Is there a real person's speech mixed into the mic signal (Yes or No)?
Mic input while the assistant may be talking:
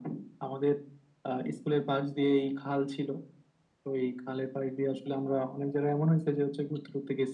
No